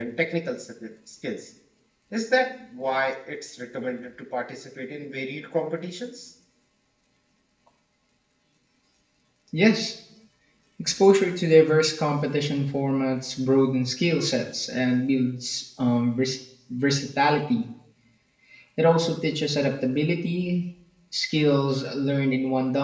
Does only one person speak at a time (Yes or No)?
Yes